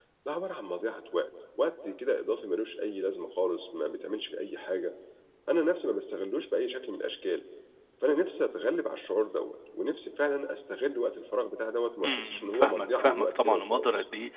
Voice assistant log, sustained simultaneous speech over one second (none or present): present